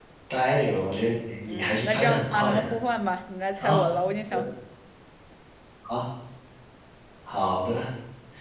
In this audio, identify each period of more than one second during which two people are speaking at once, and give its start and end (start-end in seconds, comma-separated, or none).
1.5-2.7